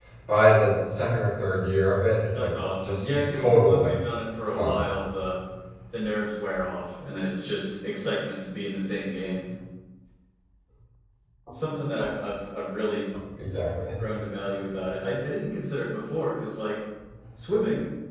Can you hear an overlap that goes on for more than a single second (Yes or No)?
Yes